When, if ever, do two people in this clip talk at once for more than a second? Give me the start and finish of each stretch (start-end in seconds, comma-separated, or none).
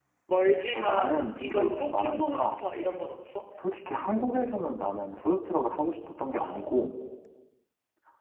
0.7-2.6